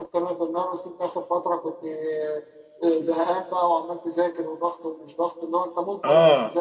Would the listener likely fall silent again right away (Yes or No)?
Yes